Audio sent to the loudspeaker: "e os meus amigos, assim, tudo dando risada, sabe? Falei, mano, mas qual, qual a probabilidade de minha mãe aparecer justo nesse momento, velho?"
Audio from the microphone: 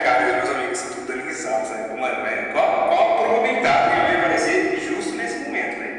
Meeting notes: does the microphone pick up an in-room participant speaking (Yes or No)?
No